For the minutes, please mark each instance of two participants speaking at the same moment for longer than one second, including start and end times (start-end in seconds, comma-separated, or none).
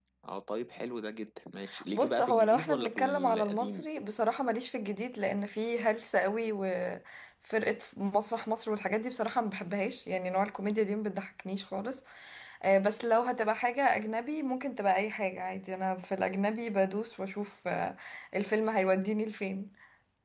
1.9-3.8